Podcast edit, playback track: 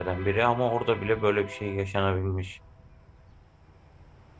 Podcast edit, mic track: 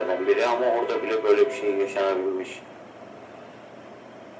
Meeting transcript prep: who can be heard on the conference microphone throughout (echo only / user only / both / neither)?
echo only